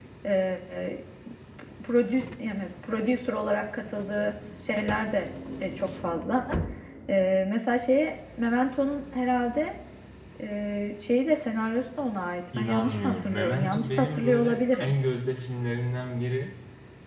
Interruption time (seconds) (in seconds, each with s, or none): 12.5 s